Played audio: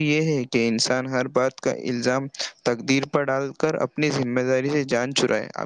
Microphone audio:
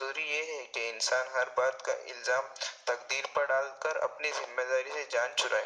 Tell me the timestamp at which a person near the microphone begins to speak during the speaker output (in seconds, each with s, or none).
none